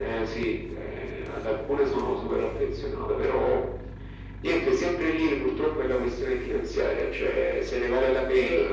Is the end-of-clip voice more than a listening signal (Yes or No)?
No